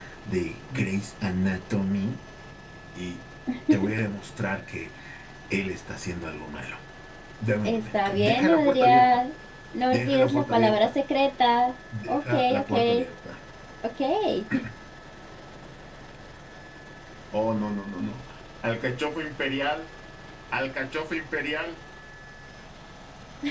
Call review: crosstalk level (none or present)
present